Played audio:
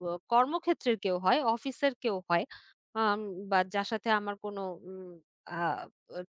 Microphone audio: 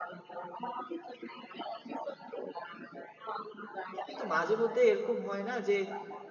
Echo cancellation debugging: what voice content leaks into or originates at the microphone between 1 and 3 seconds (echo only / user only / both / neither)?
echo only